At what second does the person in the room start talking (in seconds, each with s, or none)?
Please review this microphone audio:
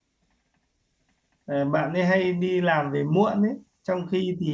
1.4 s